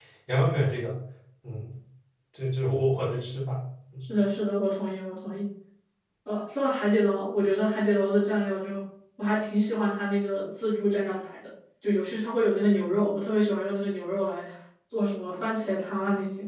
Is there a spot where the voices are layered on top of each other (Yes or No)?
No